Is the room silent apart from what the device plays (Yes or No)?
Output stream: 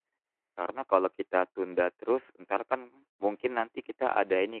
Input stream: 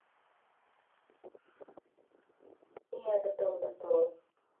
No